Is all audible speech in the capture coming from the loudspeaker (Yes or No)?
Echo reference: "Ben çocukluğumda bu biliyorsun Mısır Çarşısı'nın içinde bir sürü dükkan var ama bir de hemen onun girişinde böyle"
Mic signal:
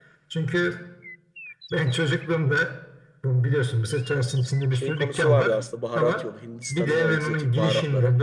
No